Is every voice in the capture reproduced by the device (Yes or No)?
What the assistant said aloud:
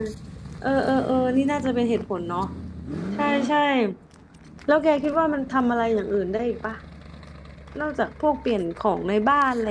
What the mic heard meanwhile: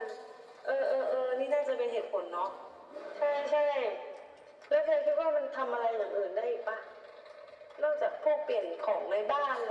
Yes